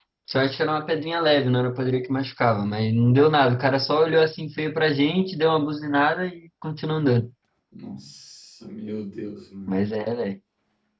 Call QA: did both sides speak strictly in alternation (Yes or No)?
Yes